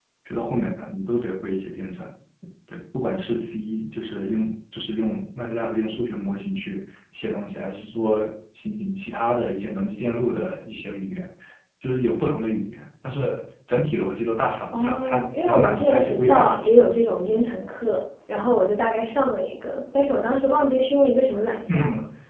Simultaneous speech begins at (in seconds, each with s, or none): 14.7 s